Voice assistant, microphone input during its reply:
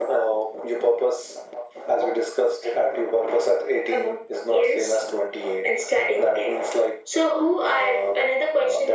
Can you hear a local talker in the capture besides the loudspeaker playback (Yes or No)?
No